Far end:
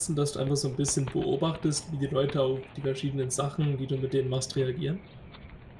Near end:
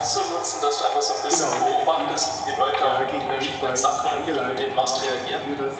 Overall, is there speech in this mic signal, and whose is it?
both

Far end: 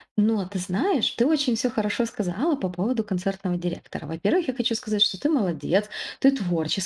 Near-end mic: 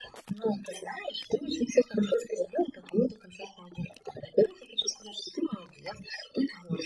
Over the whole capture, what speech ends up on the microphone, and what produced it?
echo only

